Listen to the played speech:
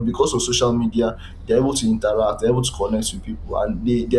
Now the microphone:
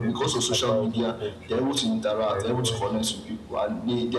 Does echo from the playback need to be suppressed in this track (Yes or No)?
Yes